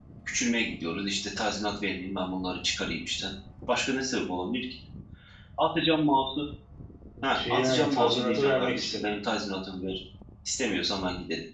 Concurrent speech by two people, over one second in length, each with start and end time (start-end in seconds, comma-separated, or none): 7.5-9.2